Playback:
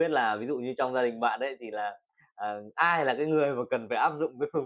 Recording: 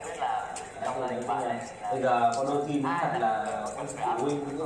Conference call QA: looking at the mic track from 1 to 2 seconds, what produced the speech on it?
both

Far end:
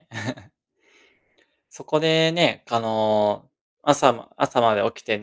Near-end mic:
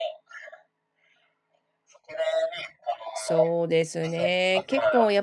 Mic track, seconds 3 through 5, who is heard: both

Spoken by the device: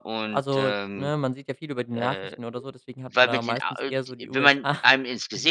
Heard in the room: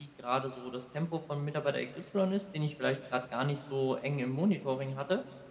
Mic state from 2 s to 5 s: user only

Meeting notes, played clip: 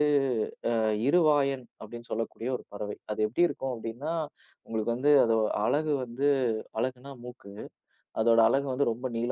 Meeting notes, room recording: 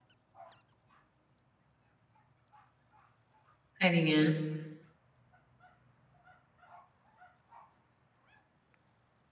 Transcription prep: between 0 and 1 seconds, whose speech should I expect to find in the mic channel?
neither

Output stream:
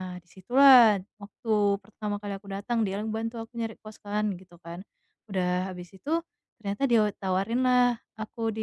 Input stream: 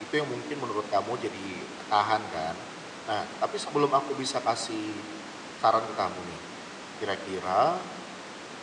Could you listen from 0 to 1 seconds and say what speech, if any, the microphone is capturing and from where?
user only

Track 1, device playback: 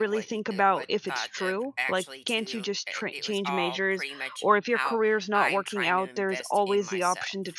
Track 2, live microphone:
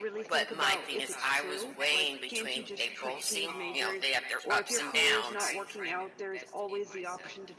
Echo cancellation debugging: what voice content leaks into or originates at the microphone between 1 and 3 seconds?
both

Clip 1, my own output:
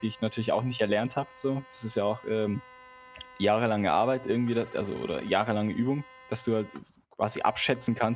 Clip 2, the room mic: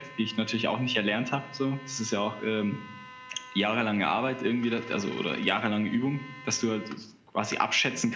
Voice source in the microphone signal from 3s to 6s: echo only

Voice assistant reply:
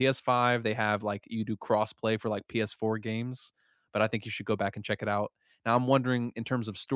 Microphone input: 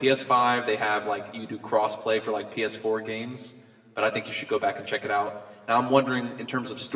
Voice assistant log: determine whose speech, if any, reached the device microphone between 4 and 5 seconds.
echo only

